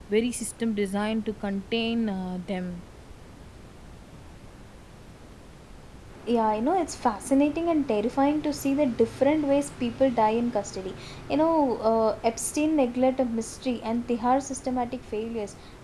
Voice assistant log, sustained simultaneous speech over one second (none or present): none